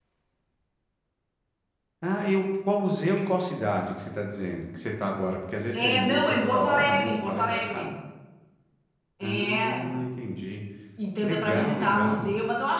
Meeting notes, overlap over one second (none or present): present